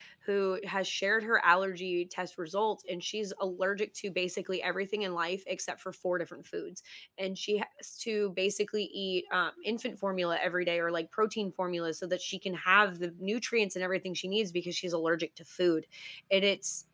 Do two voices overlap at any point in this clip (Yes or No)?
No